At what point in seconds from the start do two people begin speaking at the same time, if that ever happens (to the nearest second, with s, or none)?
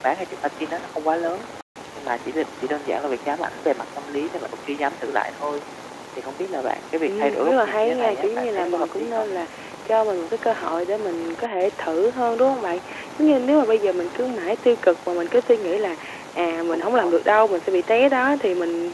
7 s